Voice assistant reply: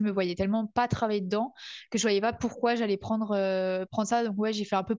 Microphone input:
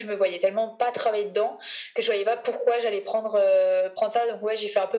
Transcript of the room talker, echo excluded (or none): none